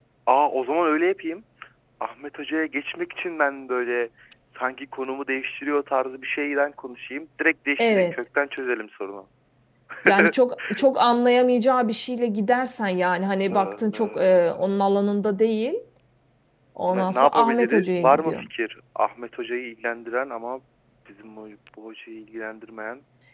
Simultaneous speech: Yes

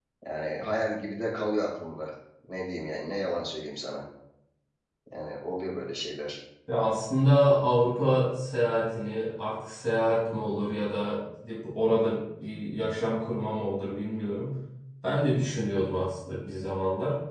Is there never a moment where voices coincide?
Yes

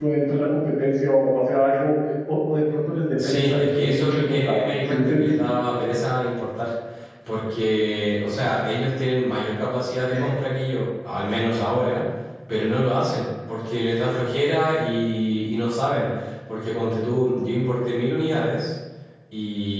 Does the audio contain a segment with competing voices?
Yes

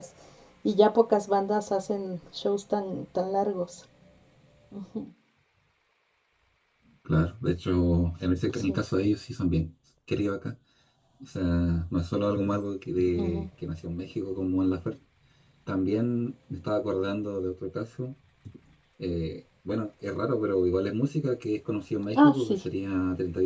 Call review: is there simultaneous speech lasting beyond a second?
No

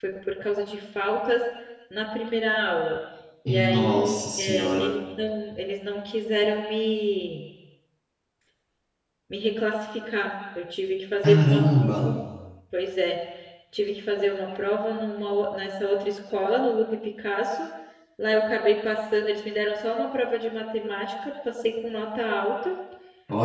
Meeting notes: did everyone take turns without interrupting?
No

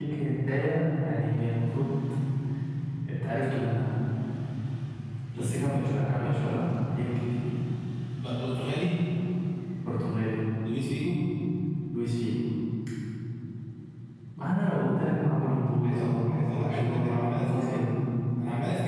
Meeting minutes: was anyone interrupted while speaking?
Yes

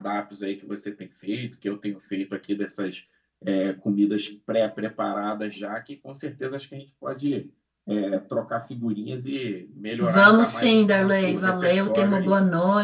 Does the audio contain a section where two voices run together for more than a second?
Yes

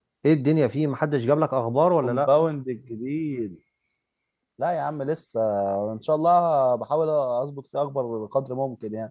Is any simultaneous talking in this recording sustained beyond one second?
No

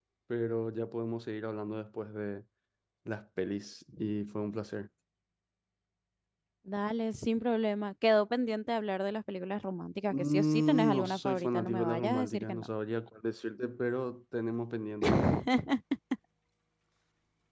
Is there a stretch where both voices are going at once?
Yes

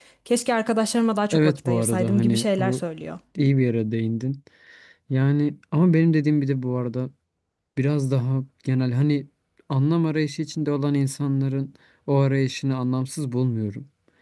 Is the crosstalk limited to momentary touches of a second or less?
No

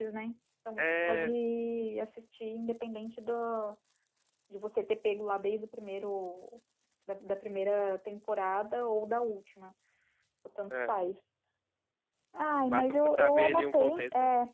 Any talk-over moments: Yes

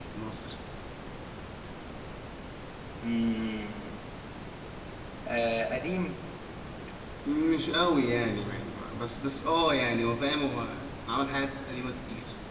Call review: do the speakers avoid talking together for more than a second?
Yes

